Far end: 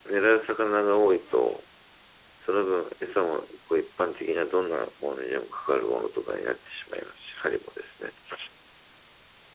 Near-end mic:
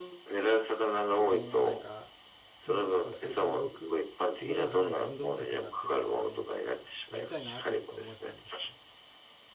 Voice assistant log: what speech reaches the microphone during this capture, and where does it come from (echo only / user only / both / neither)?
both